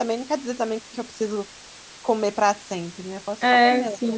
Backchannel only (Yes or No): No